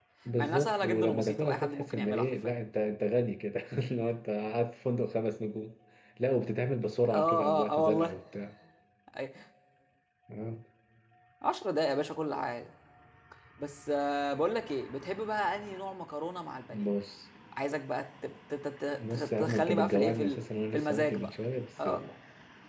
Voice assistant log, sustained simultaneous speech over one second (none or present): present